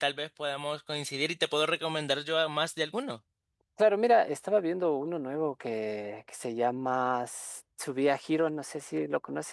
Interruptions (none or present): none